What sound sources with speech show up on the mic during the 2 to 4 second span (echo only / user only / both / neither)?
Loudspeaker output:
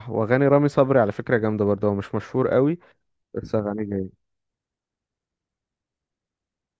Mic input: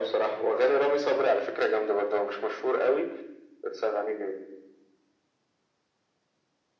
echo only